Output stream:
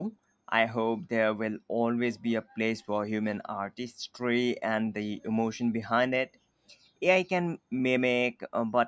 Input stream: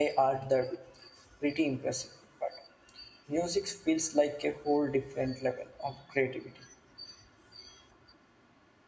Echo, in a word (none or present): none